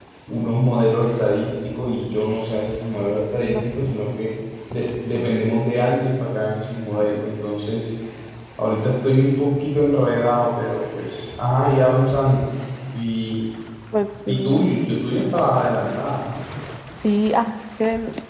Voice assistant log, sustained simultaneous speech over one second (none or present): none